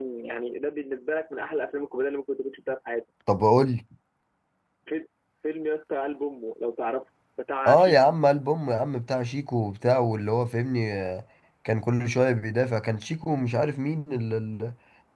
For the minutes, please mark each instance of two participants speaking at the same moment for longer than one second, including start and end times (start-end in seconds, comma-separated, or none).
none